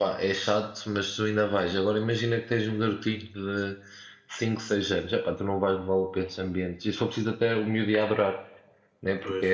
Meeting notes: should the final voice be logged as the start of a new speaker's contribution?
No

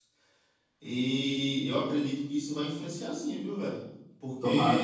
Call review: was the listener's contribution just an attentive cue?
Yes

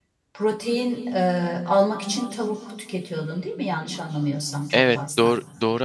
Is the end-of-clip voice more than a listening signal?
Yes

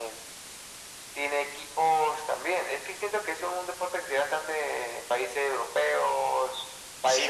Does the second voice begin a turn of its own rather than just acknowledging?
Yes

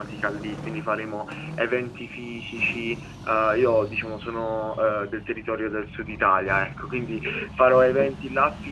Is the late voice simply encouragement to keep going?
Yes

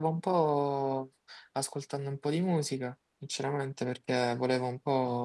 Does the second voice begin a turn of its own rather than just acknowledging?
No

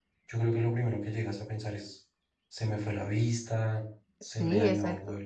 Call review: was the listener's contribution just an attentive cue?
No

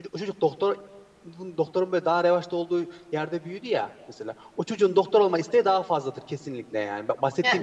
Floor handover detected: Yes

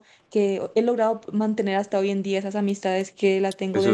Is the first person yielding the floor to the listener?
Yes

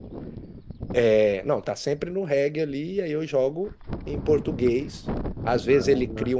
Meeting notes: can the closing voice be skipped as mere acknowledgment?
Yes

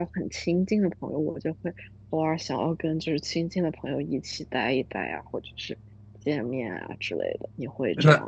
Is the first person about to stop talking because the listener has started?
Yes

